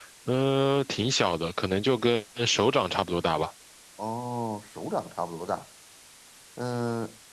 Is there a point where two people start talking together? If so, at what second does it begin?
none

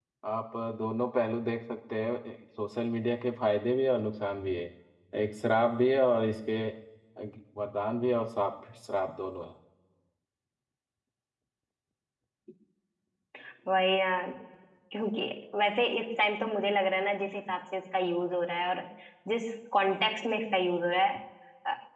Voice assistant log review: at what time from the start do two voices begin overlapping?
none

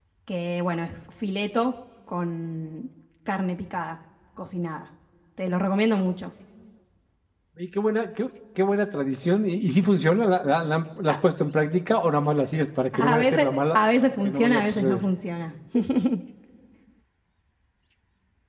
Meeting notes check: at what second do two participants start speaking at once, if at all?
12.9 s

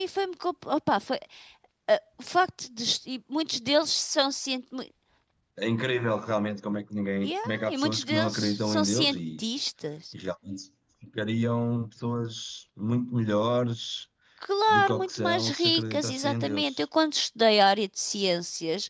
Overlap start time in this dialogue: 7.2 s

